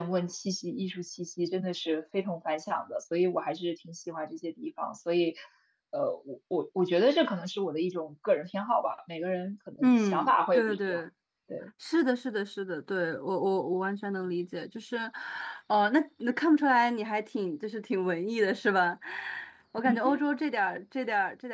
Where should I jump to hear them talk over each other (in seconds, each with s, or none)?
9.8 s